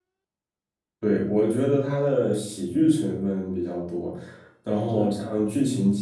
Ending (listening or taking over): listening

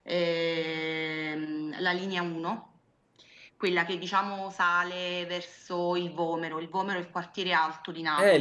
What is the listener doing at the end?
taking over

